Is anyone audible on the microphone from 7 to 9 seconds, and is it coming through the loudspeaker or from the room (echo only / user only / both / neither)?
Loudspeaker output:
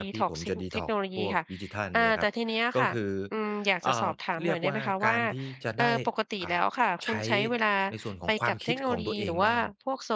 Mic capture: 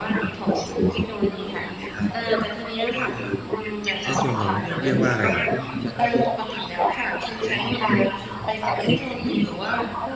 echo only